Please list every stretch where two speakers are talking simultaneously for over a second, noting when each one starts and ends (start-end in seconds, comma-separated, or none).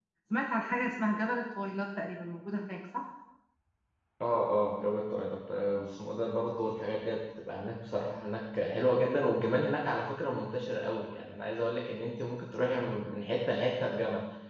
none